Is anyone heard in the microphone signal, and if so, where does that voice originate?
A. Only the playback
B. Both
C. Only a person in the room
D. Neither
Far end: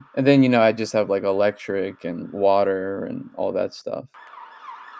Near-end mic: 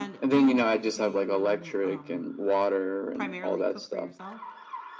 B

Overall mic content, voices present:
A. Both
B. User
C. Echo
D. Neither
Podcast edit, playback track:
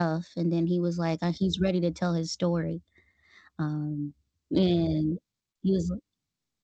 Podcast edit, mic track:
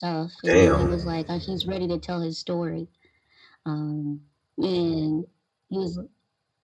A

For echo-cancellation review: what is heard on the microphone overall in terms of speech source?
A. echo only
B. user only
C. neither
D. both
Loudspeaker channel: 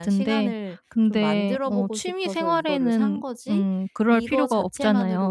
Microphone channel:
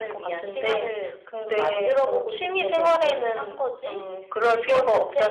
A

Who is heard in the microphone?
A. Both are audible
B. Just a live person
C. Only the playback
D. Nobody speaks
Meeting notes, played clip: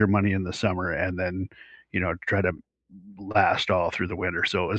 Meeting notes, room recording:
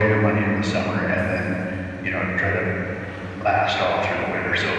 C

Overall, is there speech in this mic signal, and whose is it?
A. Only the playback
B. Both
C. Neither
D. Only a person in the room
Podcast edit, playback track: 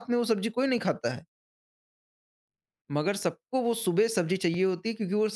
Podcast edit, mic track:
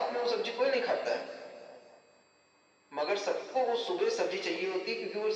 A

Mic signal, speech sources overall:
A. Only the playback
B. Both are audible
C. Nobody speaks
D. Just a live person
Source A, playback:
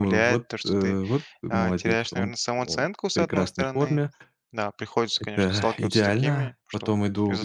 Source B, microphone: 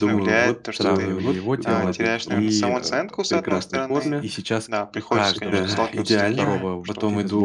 B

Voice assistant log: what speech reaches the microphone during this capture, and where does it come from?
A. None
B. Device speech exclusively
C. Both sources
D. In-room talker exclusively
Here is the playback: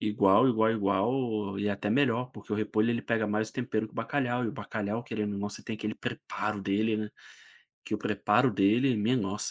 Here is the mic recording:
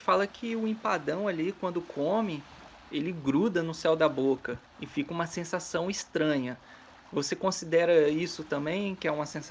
D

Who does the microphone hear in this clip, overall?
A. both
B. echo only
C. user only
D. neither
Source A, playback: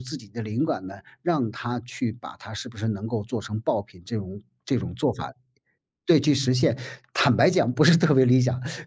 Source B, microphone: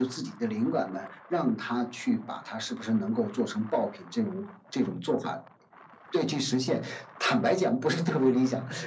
B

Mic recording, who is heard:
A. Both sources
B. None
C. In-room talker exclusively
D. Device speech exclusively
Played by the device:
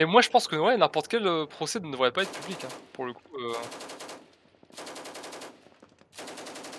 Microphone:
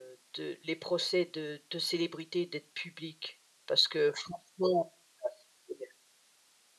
C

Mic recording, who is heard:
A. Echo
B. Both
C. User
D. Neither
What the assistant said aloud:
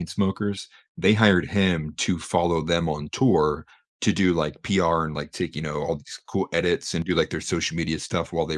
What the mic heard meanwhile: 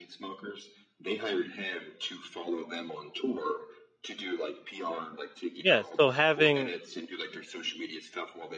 B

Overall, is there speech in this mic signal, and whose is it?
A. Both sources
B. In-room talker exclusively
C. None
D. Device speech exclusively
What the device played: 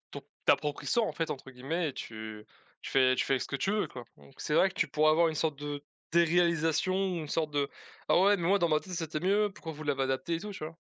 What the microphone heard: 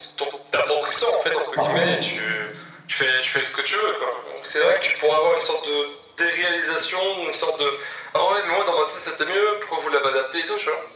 A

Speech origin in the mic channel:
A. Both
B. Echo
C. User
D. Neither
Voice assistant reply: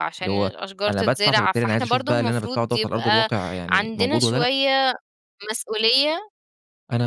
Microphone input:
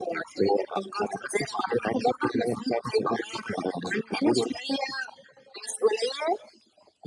B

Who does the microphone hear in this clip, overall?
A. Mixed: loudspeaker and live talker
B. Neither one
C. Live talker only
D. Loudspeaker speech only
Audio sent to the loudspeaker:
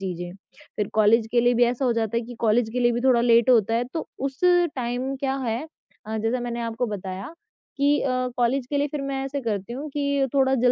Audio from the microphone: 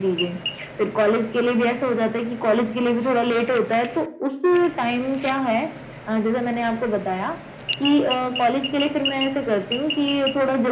D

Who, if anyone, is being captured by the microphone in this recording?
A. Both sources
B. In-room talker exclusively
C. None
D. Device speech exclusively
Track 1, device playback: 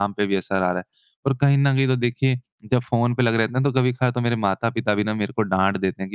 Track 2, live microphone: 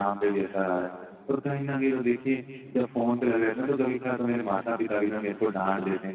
D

